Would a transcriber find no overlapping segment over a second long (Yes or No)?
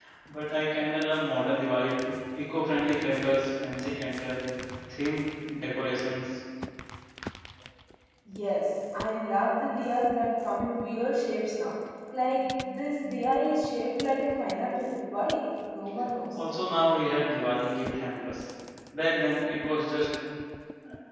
Yes